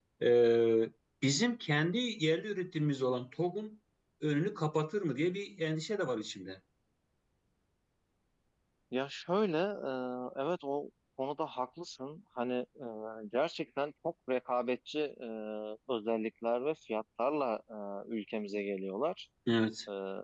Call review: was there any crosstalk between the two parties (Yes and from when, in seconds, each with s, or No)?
No